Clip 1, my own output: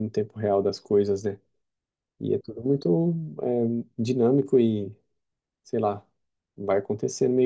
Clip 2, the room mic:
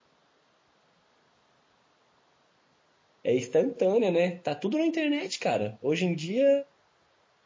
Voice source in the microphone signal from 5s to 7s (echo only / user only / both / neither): user only